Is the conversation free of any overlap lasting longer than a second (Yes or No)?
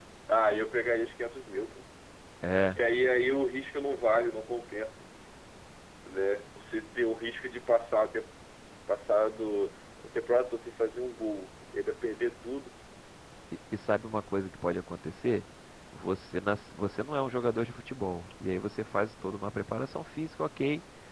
Yes